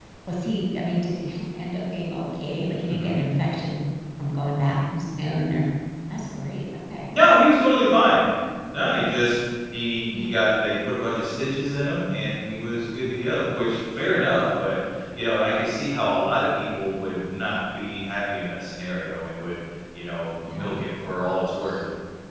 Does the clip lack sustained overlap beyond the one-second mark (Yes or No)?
Yes